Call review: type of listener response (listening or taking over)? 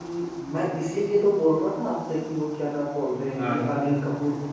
listening